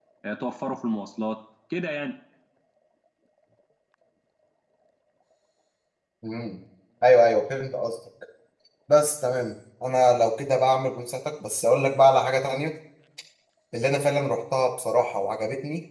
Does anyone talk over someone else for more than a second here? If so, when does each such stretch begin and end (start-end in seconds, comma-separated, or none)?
none